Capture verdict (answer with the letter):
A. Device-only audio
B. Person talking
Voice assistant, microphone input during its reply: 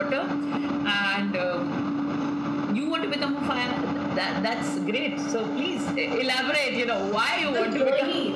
B